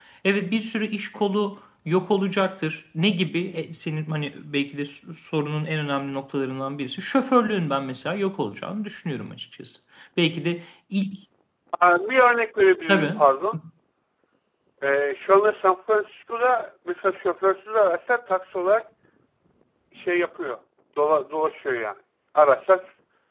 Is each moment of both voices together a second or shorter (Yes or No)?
Yes